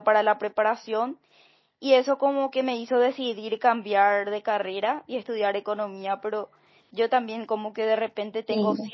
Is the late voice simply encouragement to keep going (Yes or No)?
Yes